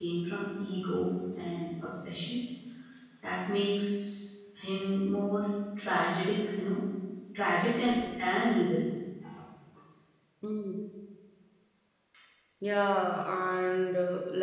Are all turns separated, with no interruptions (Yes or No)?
Yes